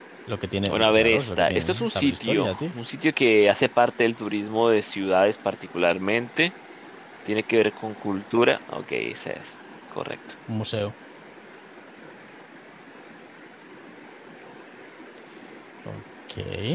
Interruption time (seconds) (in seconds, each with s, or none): 0.7 s